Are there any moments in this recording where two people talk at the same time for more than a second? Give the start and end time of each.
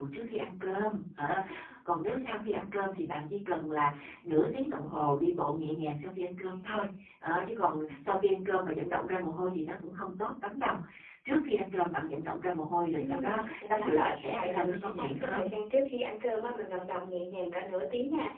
13.0-15.5

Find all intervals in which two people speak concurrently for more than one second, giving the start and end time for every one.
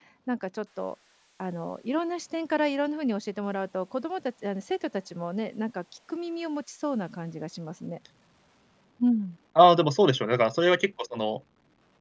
none

